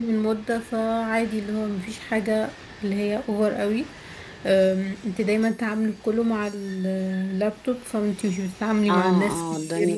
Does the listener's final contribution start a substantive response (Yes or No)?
Yes